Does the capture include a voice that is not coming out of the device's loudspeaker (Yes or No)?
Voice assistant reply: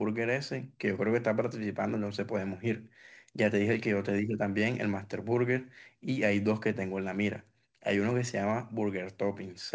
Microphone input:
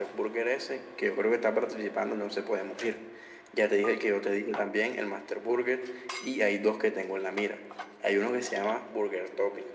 No